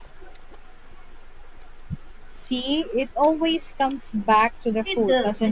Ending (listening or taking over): taking over